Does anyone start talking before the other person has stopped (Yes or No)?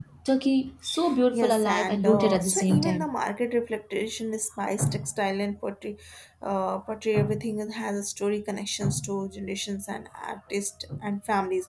Yes